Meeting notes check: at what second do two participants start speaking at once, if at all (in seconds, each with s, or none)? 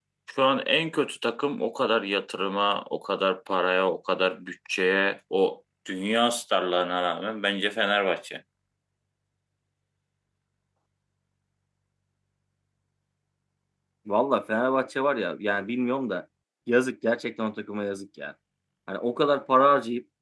none